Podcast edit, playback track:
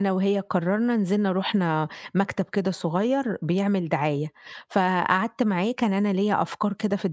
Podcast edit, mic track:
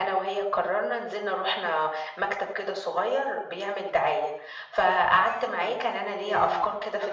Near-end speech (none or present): present